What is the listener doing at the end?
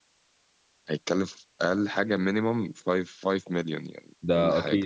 taking over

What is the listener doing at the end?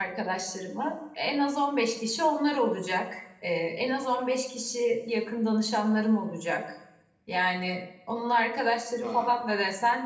listening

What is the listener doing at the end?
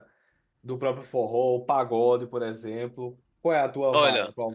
taking over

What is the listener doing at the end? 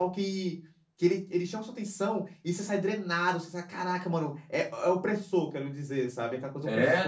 taking over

